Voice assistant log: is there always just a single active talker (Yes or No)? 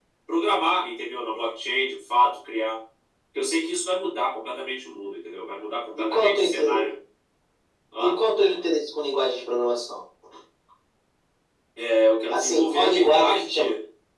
No